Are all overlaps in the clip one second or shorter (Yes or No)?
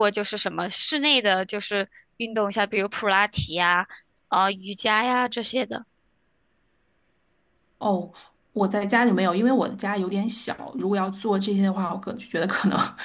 Yes